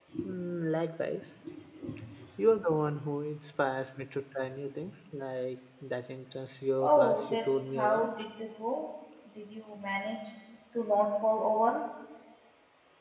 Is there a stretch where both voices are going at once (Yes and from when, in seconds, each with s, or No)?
Yes, from 6.8 s